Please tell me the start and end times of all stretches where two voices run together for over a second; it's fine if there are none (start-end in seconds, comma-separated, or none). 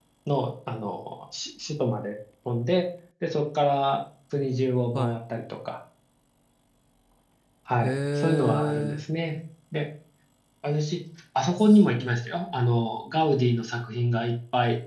7.8-9.0